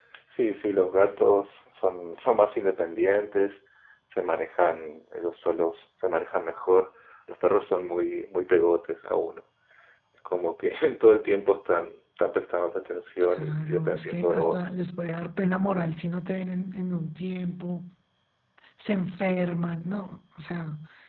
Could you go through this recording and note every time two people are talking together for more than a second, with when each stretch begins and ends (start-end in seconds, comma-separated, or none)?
13.3-14.6